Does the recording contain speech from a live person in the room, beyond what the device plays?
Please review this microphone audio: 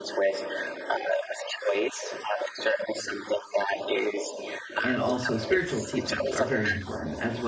Yes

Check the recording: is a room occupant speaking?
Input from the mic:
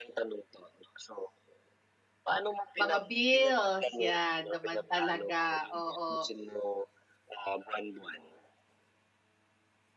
Yes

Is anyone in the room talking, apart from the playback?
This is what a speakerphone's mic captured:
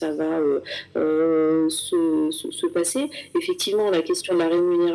No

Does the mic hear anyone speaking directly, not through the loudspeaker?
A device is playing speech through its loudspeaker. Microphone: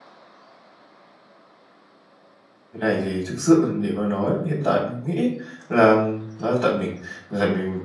Yes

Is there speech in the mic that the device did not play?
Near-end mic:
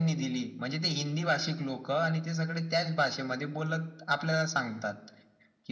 No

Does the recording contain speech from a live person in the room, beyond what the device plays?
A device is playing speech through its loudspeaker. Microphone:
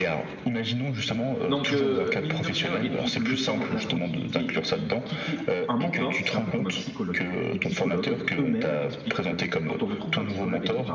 Yes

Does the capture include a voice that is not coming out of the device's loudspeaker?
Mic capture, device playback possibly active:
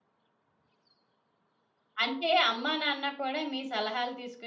Yes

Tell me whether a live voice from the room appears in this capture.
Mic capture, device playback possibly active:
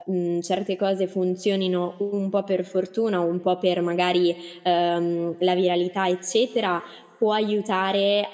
Yes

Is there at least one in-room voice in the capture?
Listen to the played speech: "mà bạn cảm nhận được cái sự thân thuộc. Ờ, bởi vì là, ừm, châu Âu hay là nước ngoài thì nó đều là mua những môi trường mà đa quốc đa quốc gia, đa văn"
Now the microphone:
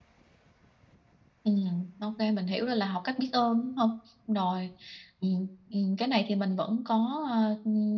Yes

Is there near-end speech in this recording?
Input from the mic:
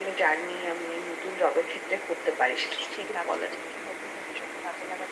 Yes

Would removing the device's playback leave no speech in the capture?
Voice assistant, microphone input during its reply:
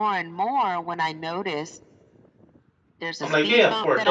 No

